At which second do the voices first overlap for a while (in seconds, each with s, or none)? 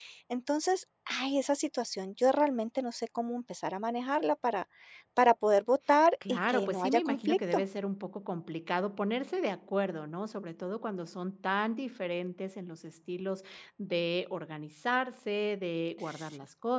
6.3 s